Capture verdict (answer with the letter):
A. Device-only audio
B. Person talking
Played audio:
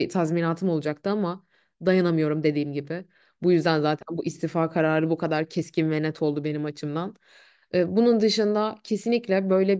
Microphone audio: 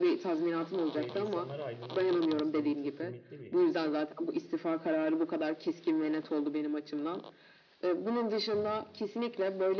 B